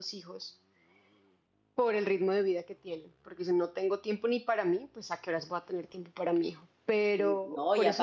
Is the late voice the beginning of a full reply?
Yes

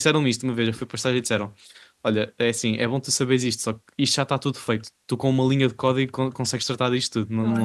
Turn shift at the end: No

